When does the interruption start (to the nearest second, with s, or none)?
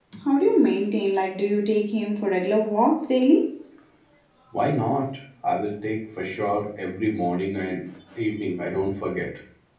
none